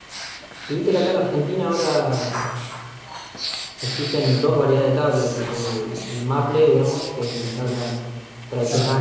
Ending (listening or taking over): listening